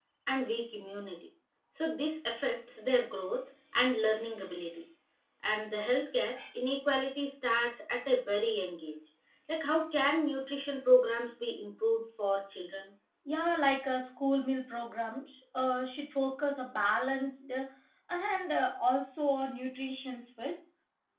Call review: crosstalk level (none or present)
none